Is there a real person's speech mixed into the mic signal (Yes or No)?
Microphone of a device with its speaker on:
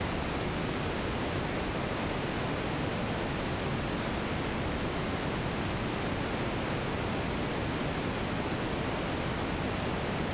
No